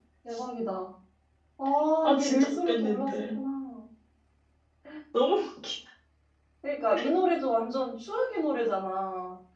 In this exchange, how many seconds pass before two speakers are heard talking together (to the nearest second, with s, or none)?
2 s